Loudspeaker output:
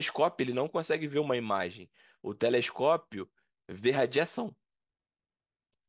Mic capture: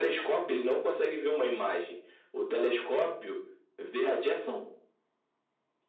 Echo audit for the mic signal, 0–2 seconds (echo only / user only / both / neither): echo only